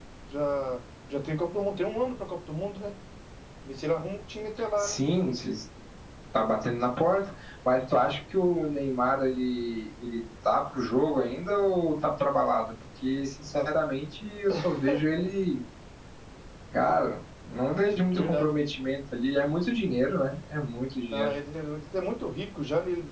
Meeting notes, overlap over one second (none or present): none